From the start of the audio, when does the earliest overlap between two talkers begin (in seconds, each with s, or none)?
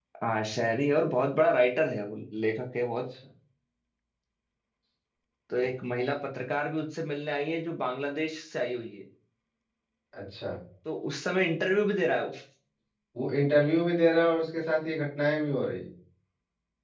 none